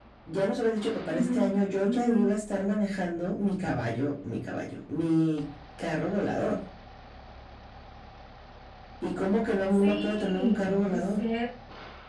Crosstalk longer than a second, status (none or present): present